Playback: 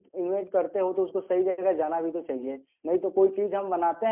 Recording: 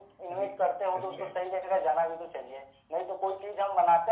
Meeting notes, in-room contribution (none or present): present